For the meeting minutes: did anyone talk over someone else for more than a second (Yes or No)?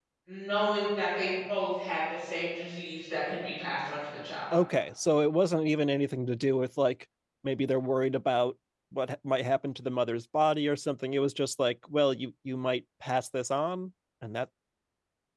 No